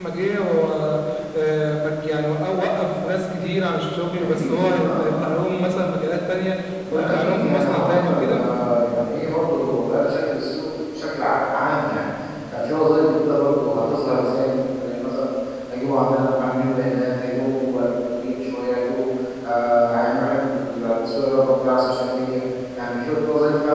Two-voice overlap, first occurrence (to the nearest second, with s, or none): 4 s